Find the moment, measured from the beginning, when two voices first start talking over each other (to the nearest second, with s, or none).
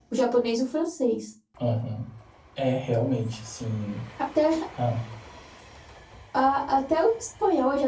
none